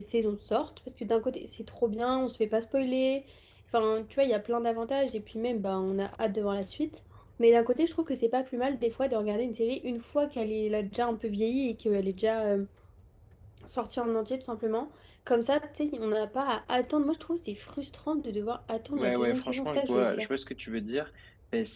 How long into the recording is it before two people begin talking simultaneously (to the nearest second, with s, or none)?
19 s